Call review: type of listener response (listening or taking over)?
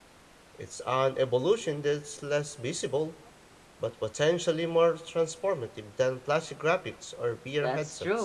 taking over